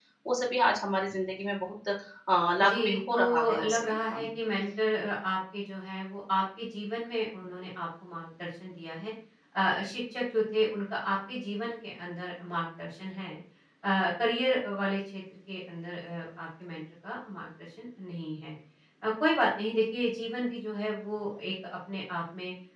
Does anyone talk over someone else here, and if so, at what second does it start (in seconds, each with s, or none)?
2.6 s